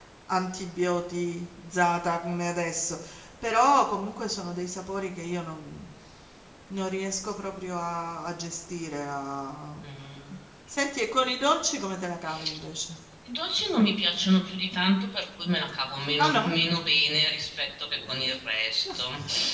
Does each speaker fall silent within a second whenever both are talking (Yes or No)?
Yes